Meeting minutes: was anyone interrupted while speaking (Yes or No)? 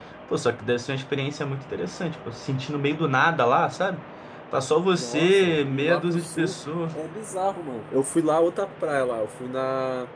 Yes